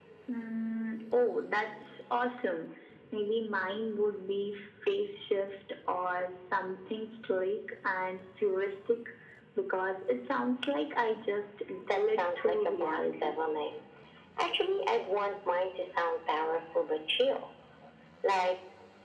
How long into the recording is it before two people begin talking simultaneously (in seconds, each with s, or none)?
11.9 s